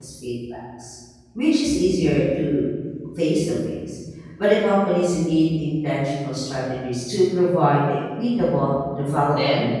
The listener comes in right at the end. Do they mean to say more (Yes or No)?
Yes